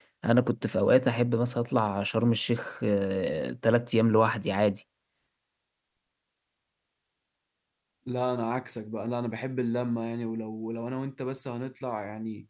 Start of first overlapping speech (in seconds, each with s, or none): none